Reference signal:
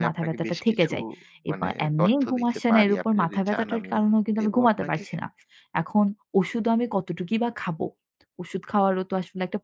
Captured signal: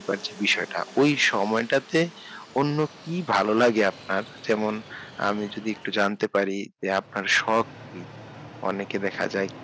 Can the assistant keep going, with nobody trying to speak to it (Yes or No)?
No